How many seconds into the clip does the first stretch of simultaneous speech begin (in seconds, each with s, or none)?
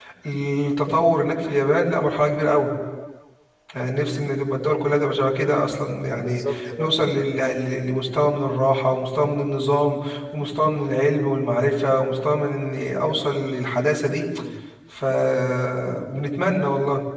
6.2 s